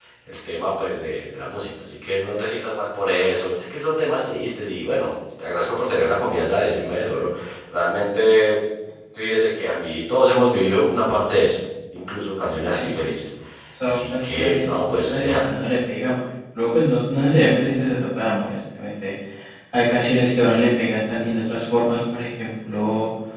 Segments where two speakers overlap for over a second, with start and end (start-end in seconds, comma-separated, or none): 13.8-15.5